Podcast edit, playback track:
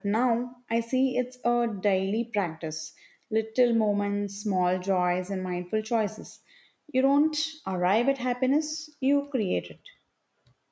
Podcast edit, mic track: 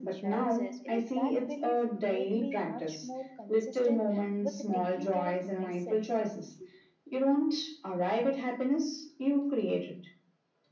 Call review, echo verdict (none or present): present